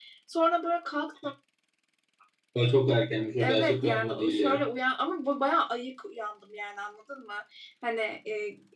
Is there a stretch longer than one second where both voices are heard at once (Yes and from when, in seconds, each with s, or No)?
Yes, from 3.4 s